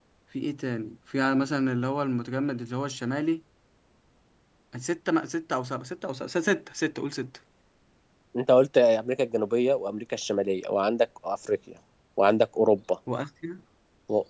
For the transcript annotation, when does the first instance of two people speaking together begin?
none

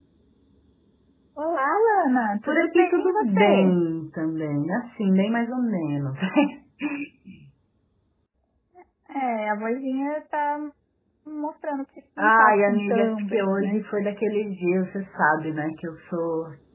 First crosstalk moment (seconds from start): 2.4 s

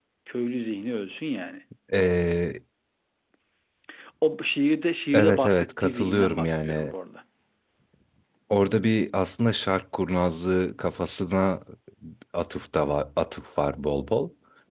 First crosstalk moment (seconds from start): 5.1 s

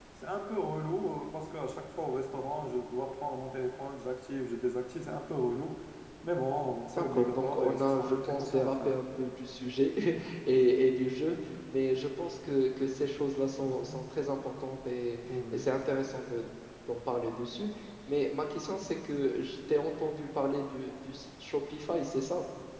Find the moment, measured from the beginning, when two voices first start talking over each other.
7.0 s

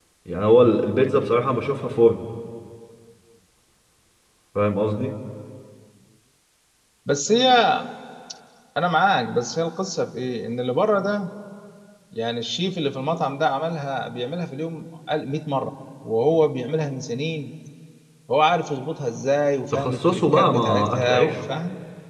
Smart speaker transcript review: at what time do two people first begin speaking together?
19.7 s

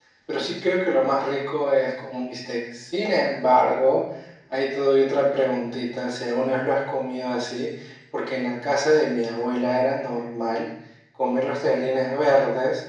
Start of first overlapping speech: none

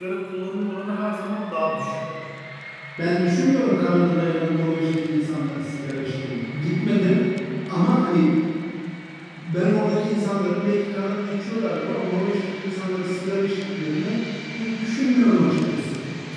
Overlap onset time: none

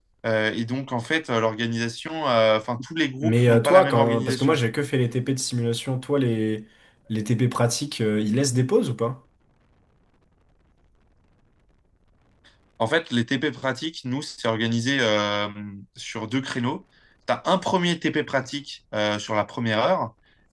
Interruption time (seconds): 3.2 s

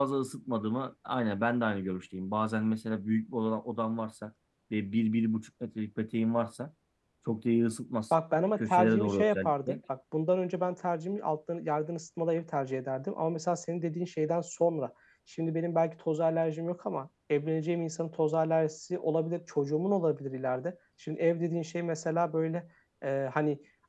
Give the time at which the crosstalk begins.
8.6 s

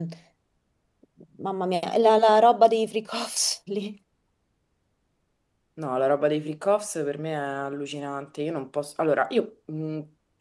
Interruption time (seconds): none

